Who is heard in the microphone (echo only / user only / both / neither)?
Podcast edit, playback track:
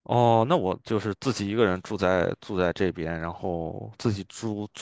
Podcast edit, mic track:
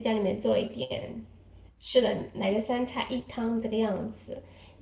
user only